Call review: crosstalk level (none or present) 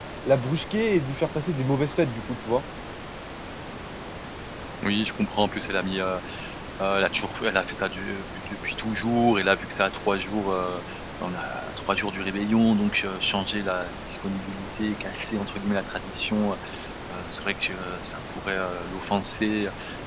none